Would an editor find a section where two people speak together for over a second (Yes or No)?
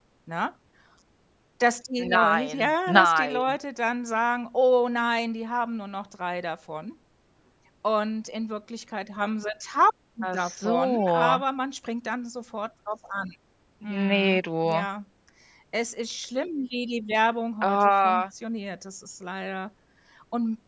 Yes